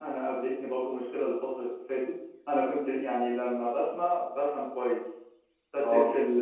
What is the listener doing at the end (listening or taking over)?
listening